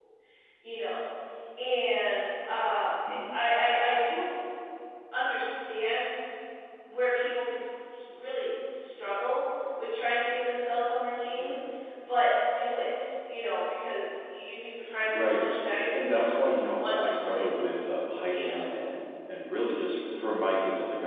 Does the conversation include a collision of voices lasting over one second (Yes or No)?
Yes